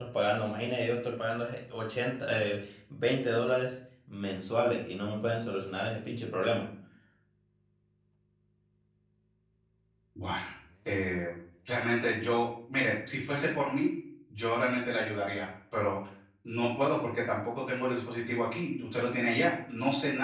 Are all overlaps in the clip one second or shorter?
Yes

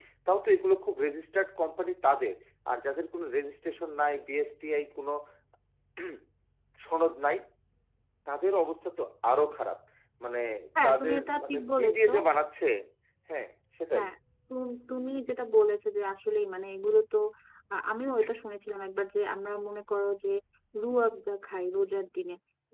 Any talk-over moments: Yes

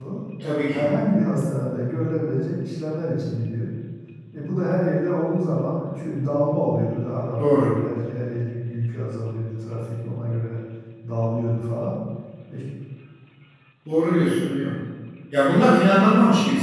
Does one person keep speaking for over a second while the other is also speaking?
No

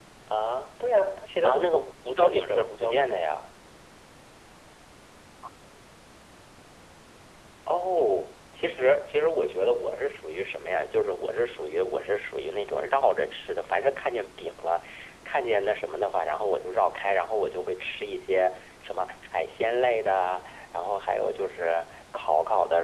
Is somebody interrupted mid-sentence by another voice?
Yes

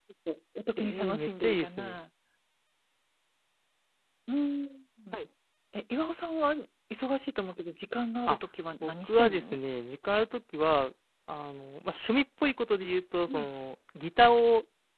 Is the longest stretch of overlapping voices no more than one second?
No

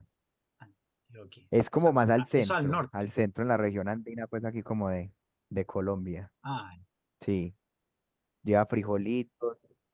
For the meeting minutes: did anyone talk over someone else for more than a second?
Yes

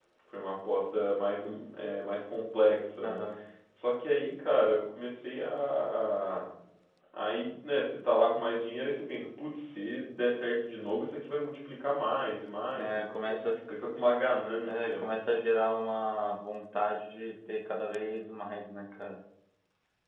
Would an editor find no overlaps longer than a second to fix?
Yes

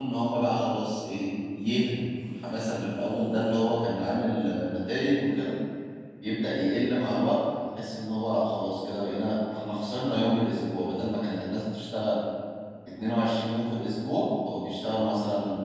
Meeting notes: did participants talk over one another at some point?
No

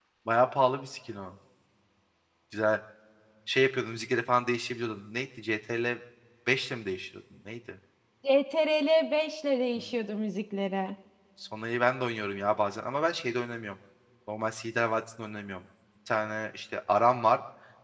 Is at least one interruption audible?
No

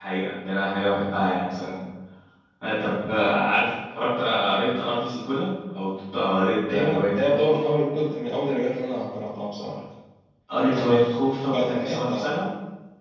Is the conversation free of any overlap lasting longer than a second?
No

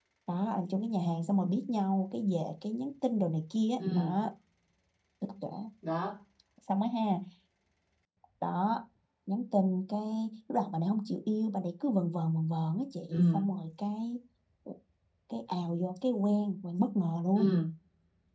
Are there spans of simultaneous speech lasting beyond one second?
No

